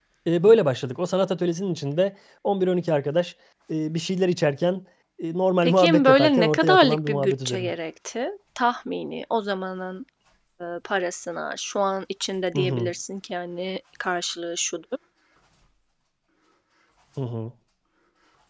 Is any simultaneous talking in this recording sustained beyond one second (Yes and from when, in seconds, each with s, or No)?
Yes, from 5.6 s